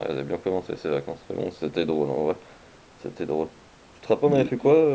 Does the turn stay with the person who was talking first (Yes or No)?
Yes